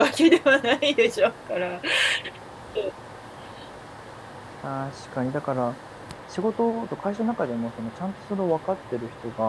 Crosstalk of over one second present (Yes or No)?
No